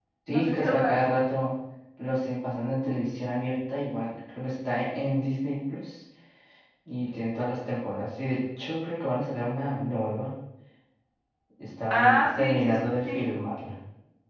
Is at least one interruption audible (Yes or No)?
Yes